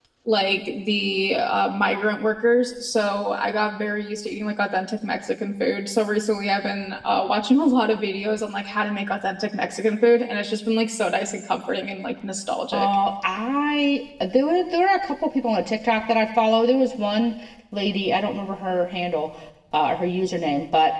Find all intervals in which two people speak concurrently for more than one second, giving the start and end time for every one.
none

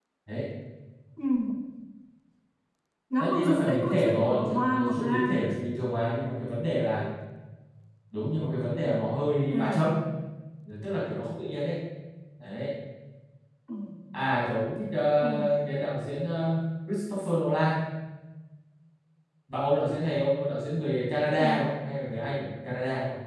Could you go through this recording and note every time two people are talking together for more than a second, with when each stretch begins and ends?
3.2-5.5

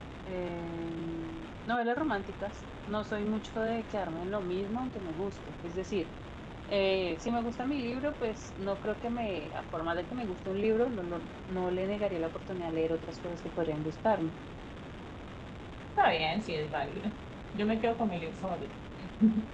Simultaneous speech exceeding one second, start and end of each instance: none

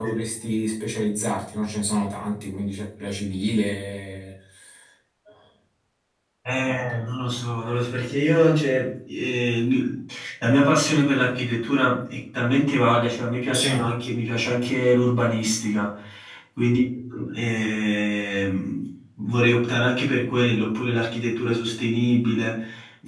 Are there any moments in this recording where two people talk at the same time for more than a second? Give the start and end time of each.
none

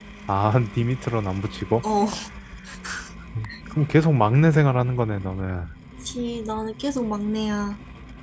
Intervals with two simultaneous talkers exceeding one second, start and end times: none

